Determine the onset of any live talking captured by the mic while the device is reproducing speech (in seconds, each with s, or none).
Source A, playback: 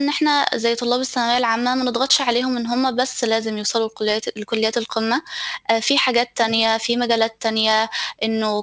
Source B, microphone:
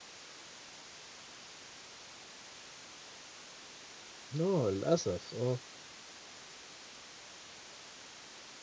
4.4 s